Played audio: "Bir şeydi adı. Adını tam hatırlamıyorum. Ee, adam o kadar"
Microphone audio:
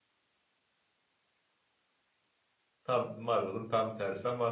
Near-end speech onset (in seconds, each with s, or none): 2.8 s